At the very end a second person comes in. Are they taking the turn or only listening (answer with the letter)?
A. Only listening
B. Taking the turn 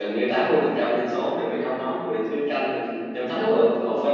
A